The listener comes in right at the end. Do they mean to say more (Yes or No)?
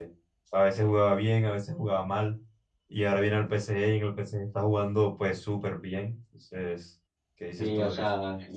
Yes